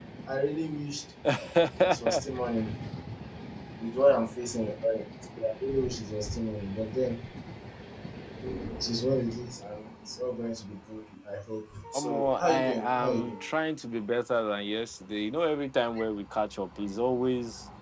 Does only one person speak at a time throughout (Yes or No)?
No